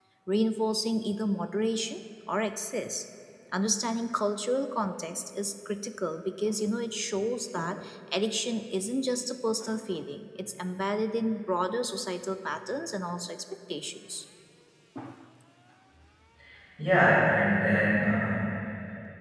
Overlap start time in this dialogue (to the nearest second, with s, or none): none